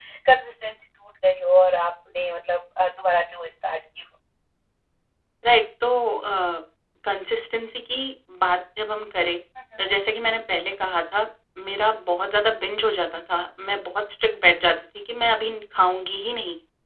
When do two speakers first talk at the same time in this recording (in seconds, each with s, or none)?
none